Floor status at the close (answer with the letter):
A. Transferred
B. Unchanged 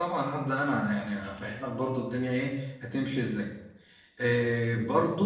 B